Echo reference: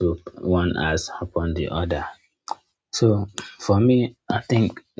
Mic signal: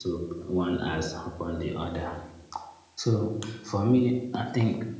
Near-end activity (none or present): none